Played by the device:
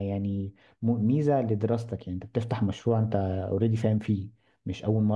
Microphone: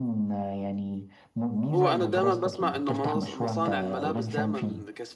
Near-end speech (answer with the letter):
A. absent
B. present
B